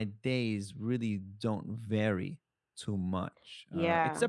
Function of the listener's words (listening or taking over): listening